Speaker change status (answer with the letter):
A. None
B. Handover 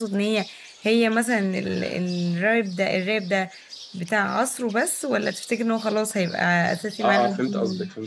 B